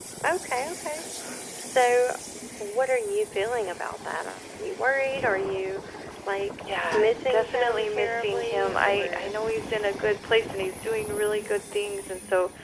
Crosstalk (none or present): present